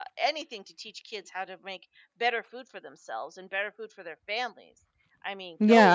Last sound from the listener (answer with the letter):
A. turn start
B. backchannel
A